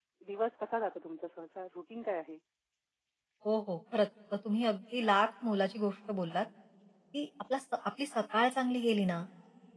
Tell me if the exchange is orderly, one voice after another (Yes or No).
Yes